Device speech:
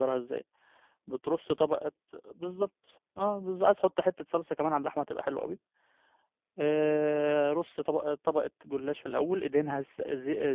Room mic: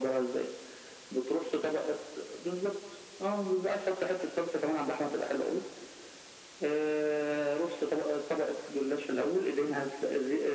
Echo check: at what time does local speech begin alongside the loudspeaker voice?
none

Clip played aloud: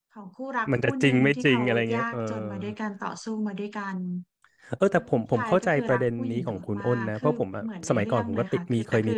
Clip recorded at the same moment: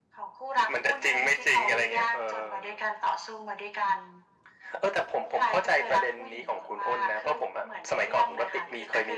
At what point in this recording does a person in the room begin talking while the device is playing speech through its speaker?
none

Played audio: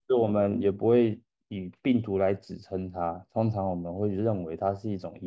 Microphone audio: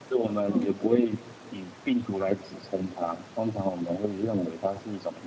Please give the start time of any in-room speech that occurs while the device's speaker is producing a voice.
0.5 s

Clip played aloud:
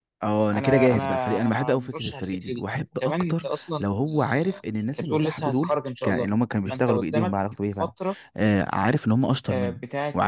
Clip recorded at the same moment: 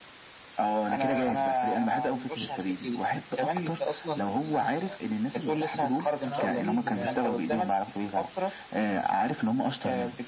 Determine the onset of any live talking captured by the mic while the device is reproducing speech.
6.2 s

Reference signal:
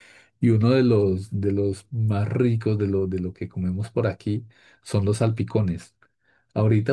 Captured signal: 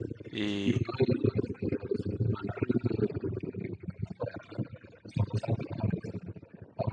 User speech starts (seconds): 0.3 s

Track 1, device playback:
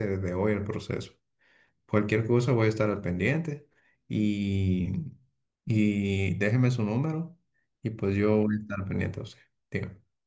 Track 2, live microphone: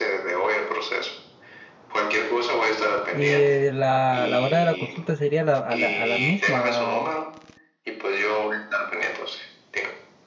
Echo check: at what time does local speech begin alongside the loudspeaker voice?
3.1 s

